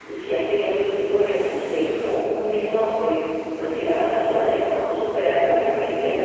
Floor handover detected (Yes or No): No